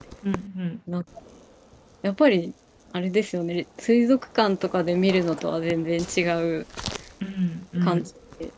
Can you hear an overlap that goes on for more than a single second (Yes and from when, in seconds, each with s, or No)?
No